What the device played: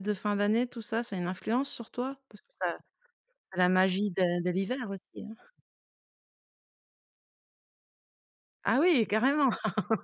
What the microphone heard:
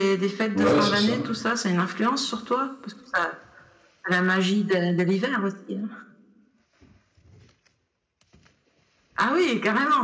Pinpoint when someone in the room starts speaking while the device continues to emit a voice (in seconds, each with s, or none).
0.6 s